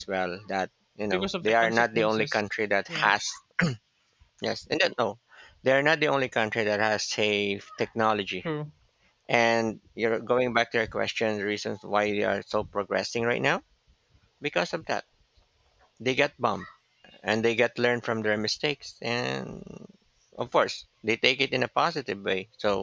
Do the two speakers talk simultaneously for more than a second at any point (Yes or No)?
Yes